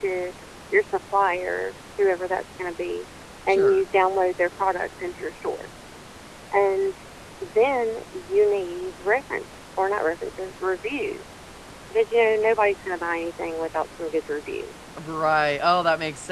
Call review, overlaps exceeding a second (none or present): none